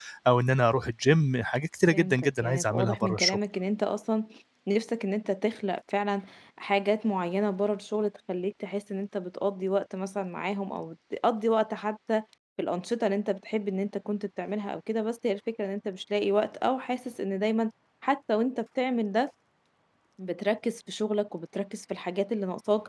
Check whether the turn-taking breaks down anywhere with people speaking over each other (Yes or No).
Yes